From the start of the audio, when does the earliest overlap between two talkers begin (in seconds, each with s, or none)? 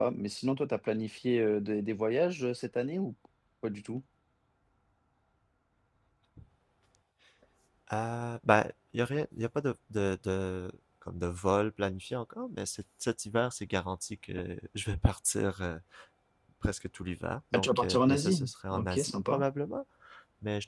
17.5 s